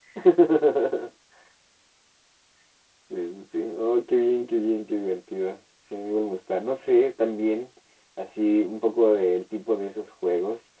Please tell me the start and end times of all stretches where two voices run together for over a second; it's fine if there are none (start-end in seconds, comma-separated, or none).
none